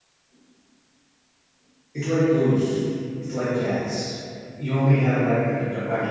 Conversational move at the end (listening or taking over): listening